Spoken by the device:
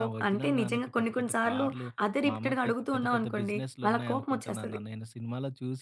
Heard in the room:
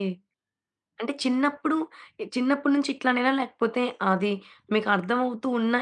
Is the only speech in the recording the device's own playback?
No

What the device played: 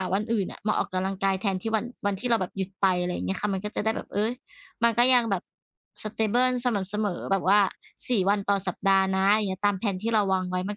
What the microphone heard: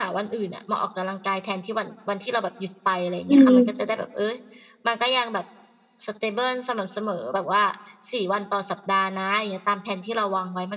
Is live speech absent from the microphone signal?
No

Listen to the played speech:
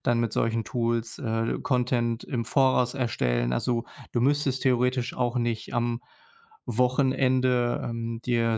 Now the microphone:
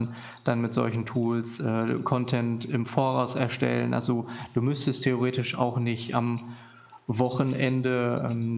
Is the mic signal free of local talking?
Yes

